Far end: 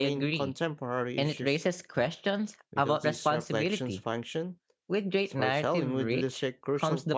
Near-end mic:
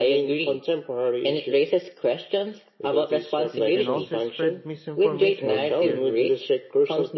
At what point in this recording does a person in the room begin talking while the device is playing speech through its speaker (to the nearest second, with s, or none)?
3 s